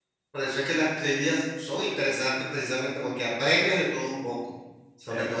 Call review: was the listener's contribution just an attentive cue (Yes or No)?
Yes